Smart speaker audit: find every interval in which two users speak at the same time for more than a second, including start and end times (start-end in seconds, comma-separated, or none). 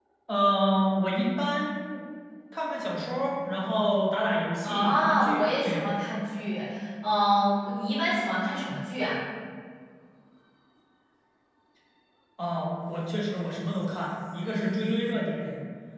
4.6-5.8